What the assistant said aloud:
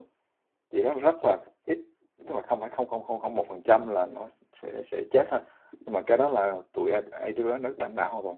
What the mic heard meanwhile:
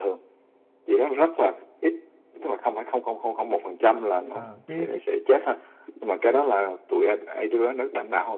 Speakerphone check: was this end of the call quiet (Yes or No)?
No